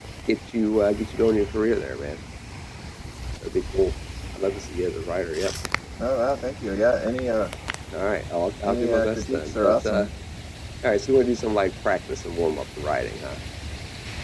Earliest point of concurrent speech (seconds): 8.6 s

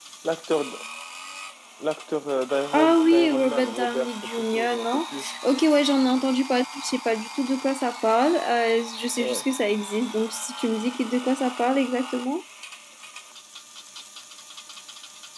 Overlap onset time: 2.7 s

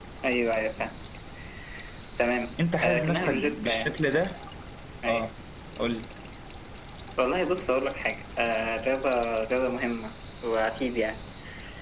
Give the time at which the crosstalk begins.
2.6 s

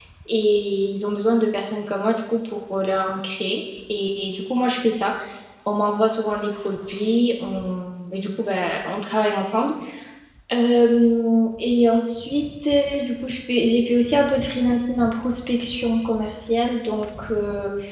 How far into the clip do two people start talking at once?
none

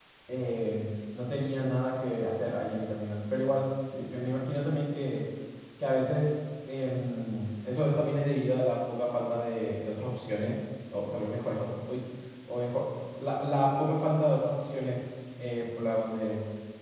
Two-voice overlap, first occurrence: none

